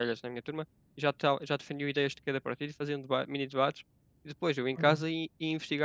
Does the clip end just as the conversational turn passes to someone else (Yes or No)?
No